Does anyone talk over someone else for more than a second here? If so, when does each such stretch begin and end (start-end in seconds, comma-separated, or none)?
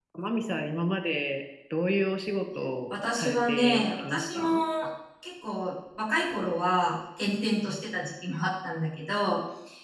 2.9-4.6